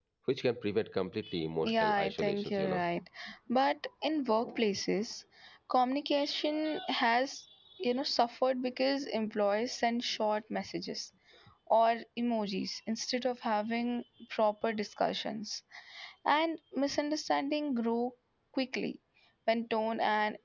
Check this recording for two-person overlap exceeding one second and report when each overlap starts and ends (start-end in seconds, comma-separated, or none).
1.6-2.8